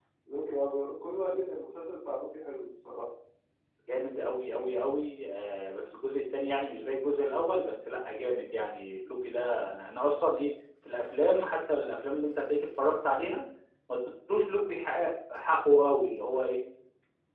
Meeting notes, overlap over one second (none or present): none